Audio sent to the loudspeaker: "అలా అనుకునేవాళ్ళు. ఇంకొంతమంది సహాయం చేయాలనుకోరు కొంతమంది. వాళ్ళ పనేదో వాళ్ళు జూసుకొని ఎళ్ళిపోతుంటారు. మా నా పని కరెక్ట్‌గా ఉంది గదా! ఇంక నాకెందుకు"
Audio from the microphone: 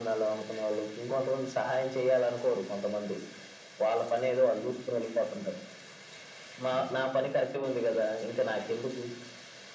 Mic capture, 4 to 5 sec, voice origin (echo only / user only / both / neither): echo only